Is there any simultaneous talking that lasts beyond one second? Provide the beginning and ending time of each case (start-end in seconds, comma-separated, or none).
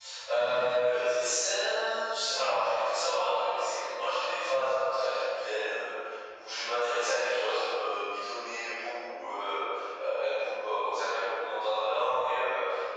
none